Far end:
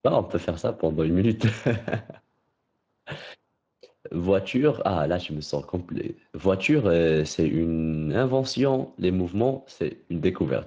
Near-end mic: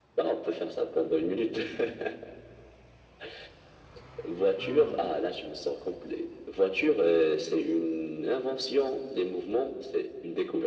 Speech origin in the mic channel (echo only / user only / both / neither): both